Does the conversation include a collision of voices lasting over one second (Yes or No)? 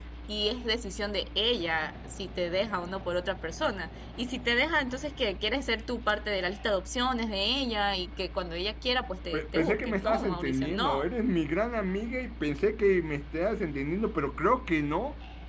Yes